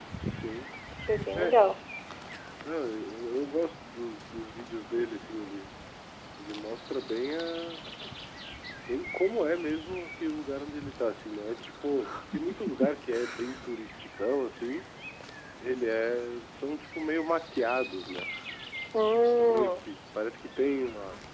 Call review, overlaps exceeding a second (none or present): none